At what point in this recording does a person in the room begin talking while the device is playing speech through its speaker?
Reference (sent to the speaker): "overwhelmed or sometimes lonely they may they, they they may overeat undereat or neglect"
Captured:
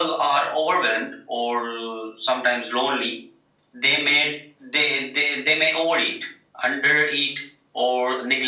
none

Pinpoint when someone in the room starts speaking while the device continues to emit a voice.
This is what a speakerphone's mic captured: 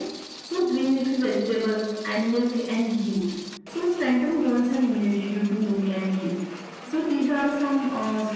none

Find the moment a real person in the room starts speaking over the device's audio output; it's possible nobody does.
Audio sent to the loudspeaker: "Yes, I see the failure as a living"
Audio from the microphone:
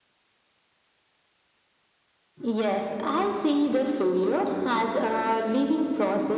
none

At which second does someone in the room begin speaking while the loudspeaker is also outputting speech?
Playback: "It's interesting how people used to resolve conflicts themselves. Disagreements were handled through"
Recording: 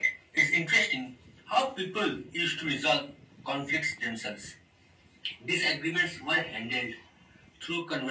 none

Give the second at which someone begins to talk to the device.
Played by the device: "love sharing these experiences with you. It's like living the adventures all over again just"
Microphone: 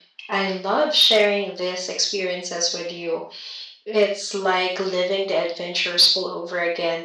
none

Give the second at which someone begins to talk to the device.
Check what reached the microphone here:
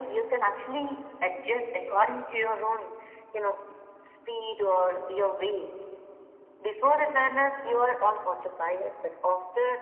none

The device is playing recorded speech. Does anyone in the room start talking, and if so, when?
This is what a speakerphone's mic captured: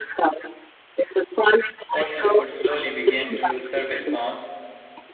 1.9 s

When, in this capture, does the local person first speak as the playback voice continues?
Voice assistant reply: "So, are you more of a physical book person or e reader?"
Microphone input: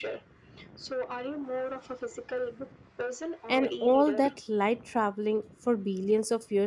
3.5 s

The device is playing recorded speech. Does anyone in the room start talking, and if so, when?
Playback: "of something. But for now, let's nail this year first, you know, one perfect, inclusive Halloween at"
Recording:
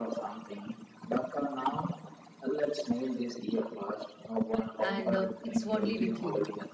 4.8 s

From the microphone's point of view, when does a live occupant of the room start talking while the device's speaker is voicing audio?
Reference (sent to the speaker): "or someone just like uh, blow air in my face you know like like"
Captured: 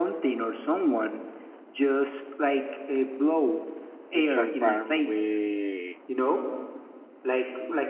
4.1 s

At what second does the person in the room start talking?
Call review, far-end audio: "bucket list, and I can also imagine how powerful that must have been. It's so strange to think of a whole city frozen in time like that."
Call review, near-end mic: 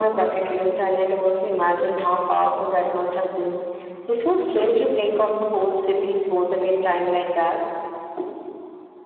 none

